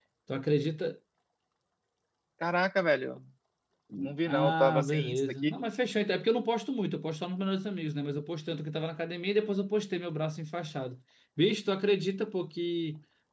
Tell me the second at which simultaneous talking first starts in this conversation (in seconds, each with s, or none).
4.3 s